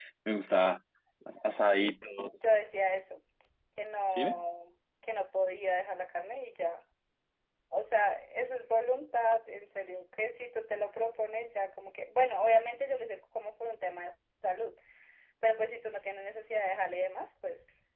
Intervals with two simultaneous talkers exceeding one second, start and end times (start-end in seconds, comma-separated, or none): none